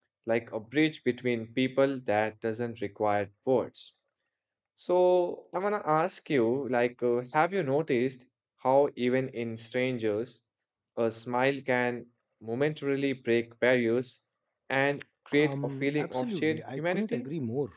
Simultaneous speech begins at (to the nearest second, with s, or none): 15 s